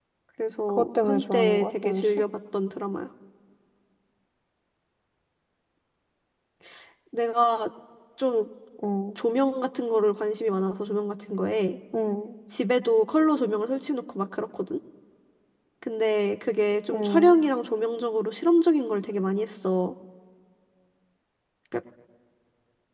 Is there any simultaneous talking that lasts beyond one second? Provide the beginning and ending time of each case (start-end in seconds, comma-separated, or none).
0.7-2.2